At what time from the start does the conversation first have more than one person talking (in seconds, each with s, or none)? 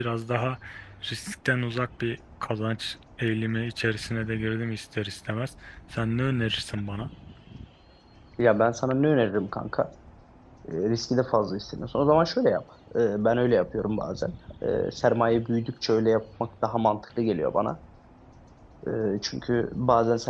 none